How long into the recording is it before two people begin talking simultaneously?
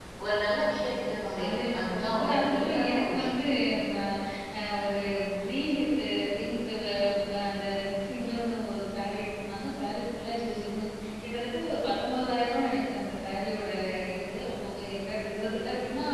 1 s

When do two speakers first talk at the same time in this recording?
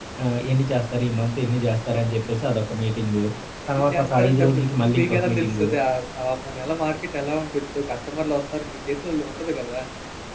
4 s

